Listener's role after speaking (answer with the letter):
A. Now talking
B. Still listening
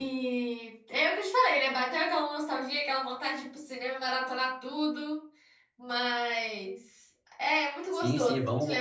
A